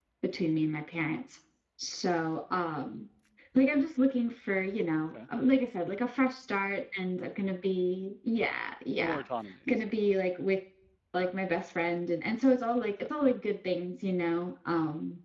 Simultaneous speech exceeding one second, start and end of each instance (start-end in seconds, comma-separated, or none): none